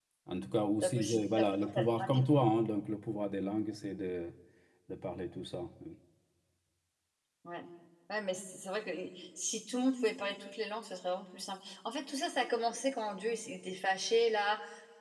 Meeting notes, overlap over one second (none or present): present